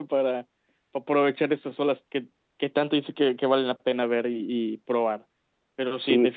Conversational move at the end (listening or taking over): listening